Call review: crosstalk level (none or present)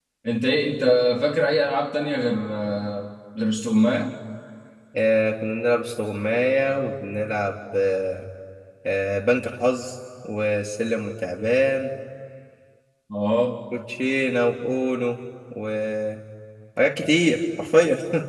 none